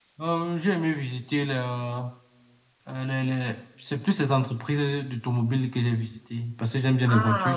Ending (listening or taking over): taking over